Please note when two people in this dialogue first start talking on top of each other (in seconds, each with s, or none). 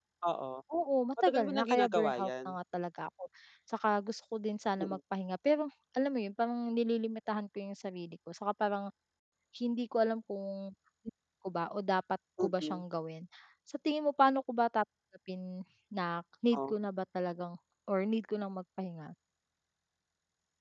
1.2 s